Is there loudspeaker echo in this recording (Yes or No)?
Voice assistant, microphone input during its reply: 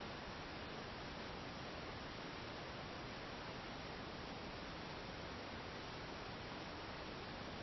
No